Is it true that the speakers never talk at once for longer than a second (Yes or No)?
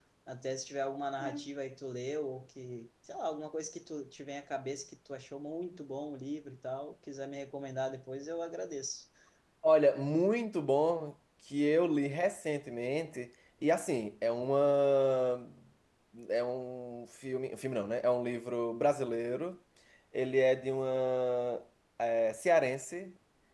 Yes